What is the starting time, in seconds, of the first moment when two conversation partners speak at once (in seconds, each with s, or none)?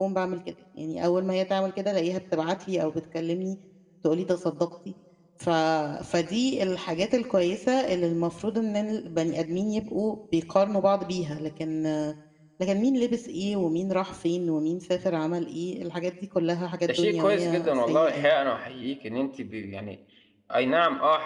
16.9 s